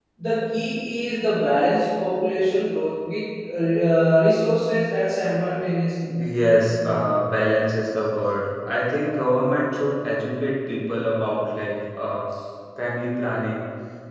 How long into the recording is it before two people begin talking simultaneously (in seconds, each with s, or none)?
none